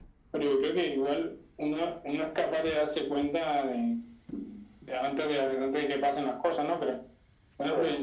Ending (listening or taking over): listening